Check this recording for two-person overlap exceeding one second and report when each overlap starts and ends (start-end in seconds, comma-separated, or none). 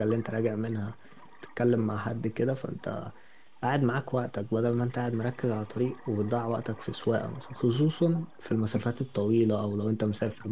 none